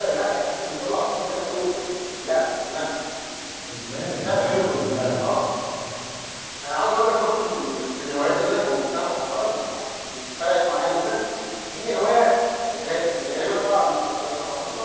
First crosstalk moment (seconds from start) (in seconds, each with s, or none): 3.9 s